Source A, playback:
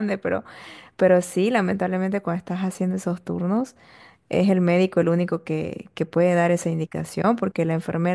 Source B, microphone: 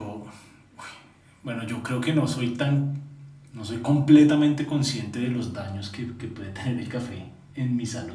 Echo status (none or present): none